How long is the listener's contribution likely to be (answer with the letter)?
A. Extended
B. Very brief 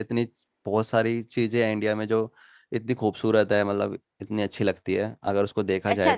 A